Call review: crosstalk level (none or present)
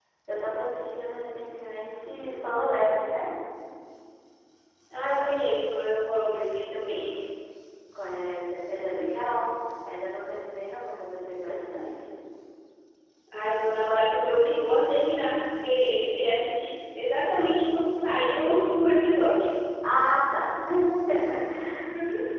none